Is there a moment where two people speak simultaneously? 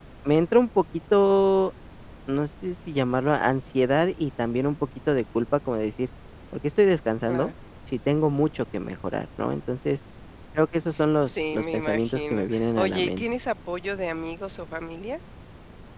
Yes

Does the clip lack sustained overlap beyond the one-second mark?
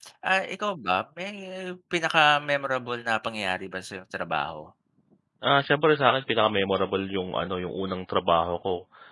Yes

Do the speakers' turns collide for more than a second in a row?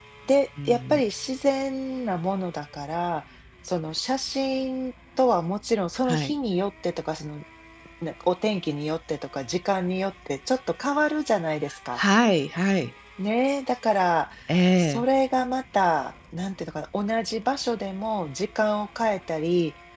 No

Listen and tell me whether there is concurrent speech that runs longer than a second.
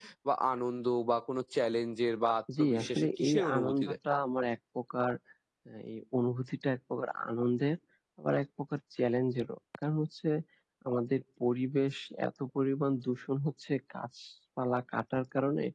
Yes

